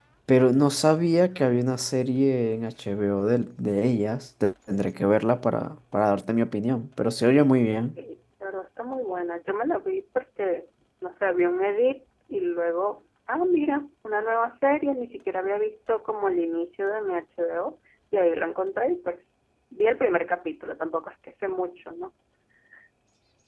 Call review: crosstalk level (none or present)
none